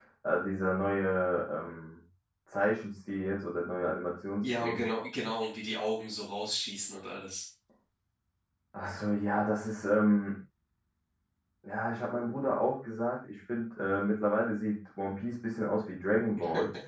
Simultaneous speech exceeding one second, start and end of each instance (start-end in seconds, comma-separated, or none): none